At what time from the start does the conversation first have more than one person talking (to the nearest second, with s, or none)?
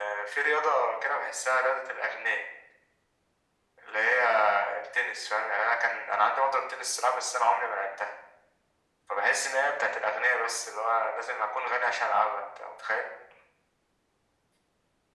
none